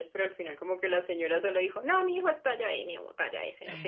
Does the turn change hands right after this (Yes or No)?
Yes